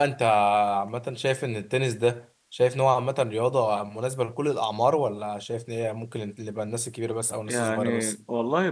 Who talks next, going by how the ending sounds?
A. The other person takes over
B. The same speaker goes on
A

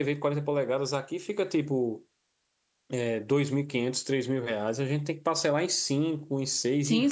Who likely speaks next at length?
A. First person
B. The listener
B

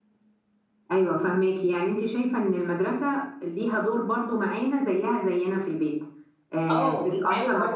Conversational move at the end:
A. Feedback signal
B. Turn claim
B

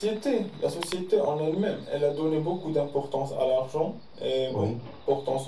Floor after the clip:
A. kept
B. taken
A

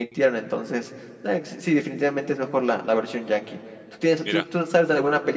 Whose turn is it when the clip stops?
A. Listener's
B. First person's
B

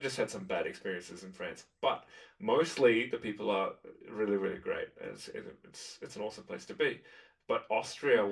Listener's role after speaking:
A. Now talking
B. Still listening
B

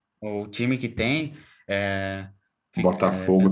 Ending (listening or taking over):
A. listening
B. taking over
B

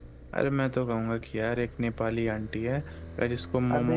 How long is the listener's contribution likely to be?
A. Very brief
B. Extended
B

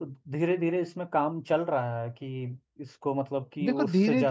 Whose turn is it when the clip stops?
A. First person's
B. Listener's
B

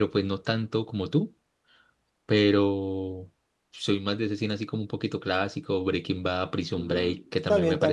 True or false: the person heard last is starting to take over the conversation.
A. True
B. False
A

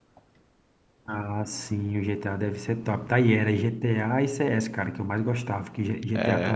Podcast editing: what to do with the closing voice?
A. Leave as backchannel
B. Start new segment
A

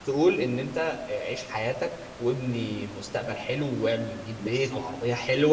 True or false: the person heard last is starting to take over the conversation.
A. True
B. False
B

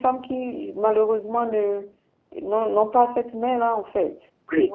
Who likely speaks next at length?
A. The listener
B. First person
A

